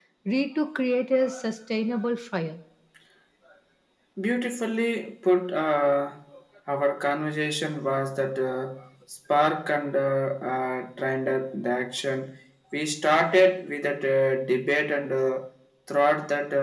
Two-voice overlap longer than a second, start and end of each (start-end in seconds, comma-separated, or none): none